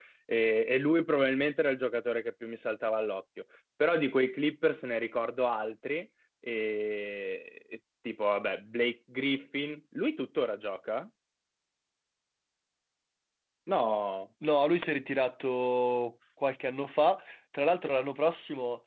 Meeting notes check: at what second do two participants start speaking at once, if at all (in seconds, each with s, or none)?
none